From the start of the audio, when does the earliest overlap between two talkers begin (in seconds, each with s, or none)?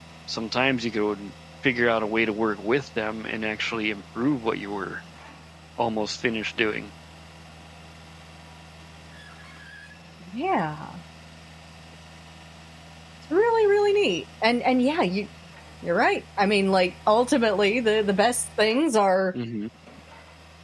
none